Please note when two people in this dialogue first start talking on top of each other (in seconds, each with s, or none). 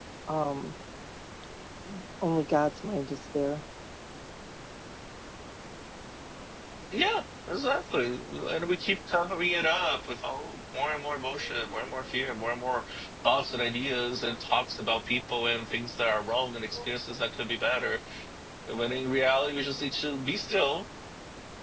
none